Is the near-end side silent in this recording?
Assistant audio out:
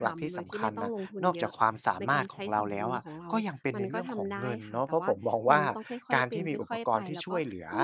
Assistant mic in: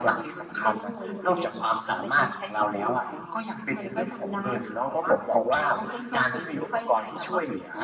Yes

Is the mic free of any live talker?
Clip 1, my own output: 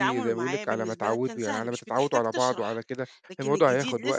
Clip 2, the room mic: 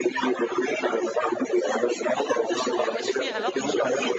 No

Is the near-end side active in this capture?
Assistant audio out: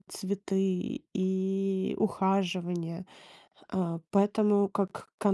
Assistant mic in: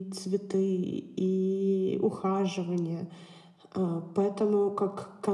No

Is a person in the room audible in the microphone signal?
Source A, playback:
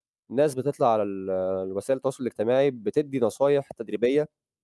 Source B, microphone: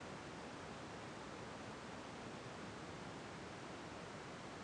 No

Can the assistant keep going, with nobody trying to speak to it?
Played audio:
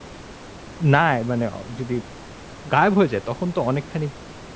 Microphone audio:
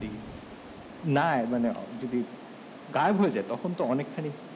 Yes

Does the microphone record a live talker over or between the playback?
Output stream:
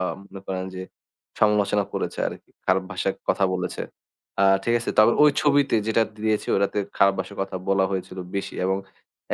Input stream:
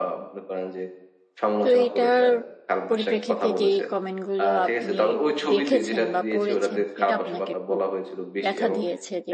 Yes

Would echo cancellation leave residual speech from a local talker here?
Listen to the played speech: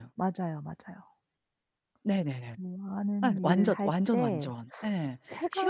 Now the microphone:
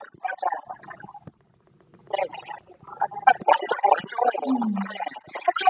Yes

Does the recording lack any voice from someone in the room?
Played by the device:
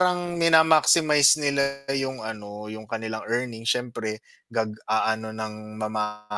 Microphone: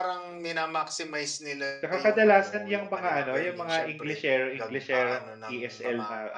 No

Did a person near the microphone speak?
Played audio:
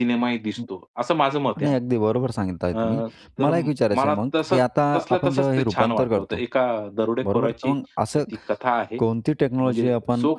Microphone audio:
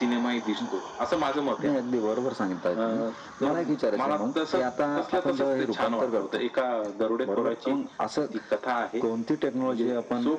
No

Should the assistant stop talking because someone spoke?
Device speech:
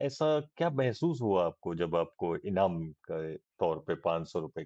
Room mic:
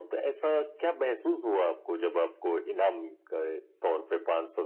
No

